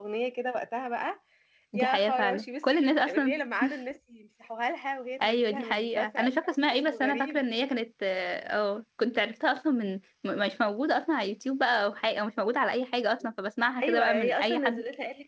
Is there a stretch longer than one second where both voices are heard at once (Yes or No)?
Yes